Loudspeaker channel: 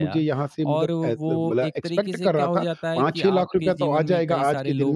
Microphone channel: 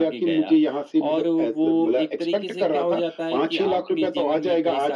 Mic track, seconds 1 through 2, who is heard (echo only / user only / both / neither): echo only